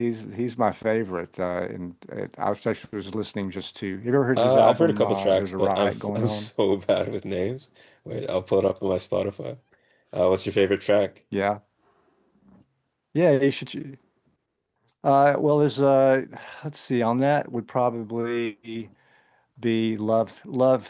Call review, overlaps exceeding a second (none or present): present